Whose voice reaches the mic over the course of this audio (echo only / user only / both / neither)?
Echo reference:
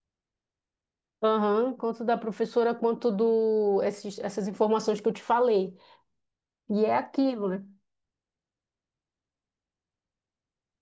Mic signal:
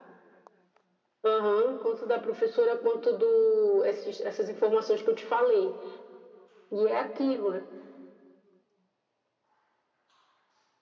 echo only